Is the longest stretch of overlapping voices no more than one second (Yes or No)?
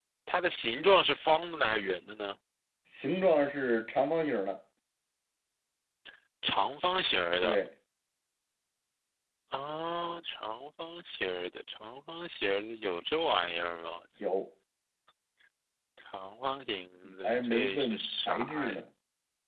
No